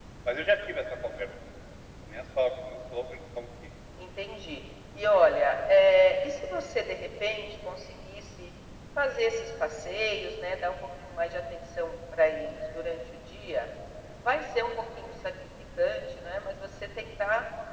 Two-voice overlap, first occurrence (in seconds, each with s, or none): none